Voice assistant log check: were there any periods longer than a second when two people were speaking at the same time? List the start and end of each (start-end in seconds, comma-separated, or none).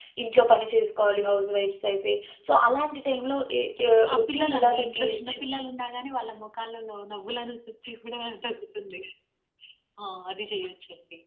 3.9-5.4